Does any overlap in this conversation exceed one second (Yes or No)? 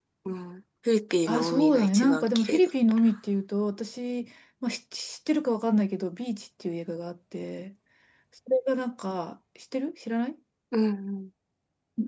Yes